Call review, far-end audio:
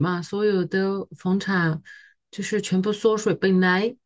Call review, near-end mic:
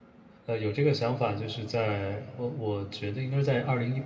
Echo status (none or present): none